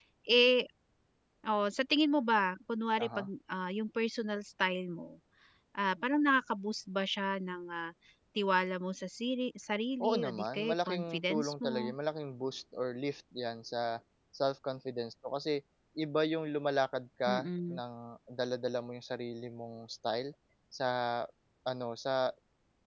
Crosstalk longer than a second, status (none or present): present